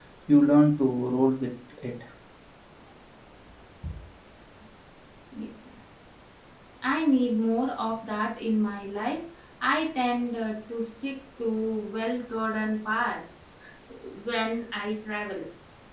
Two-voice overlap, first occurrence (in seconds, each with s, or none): none